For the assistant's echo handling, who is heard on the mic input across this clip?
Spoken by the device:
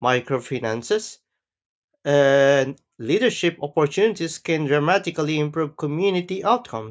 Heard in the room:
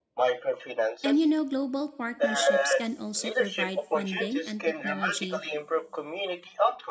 both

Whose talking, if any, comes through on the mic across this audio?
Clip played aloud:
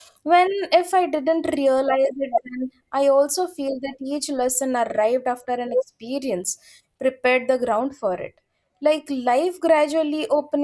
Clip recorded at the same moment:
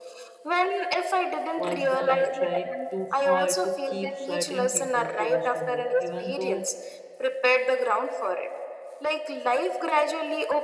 both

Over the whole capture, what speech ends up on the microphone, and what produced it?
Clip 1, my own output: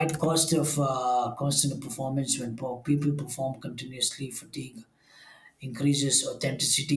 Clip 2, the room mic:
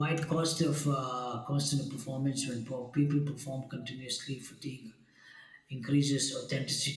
echo only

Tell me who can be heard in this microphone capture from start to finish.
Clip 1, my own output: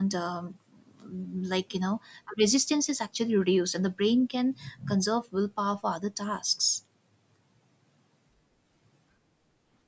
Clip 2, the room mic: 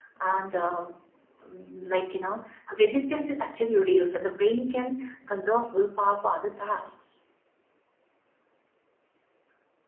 echo only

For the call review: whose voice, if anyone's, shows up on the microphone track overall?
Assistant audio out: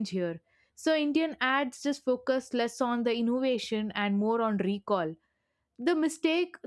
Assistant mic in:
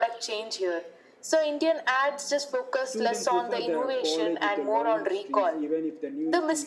both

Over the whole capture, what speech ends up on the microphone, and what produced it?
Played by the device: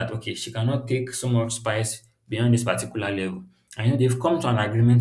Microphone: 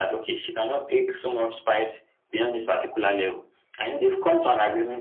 echo only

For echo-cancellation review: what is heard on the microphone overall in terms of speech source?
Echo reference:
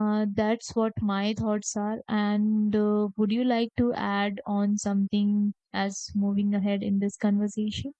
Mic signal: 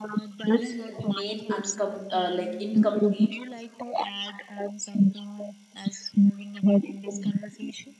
both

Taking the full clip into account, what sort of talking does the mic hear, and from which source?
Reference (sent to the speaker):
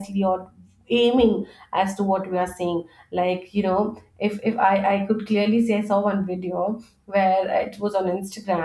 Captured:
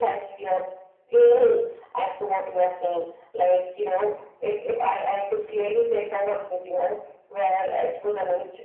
echo only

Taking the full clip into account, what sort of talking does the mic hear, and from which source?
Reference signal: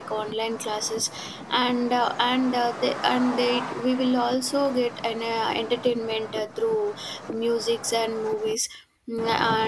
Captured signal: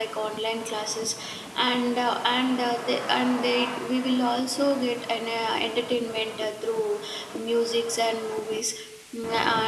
echo only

